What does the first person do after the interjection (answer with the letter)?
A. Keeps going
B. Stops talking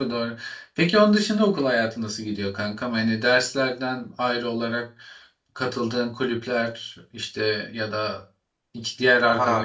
B